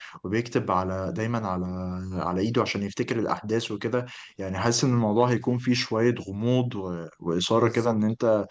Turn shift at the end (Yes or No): No